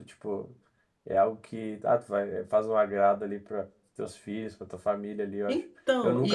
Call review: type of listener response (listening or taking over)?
listening